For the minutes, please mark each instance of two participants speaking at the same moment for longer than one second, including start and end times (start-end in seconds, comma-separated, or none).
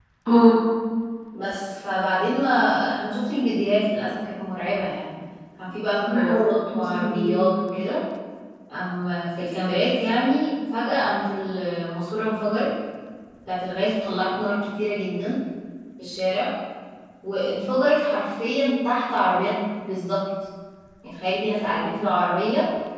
6.0-7.5